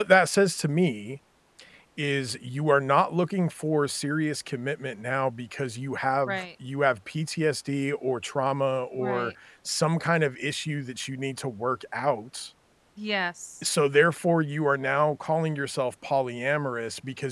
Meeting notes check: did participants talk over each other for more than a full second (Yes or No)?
No